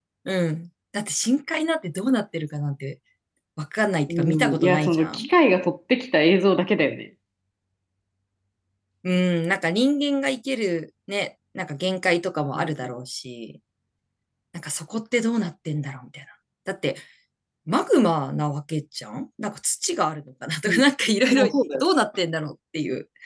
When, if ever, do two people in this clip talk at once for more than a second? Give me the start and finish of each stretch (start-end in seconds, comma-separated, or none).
4.1-5.3